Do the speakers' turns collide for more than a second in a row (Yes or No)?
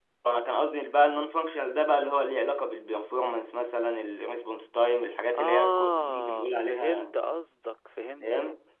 Yes